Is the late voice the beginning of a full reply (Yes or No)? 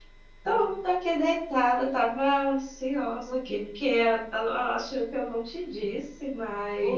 Yes